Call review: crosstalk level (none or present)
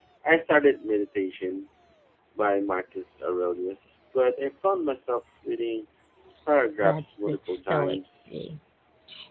present